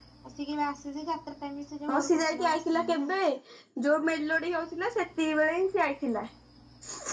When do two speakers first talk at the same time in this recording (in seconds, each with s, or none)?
1.9 s